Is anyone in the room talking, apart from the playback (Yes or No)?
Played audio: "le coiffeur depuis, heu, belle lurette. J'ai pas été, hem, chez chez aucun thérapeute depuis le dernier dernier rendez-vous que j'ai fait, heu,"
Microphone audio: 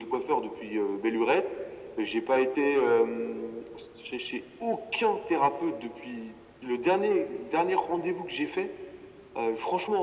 No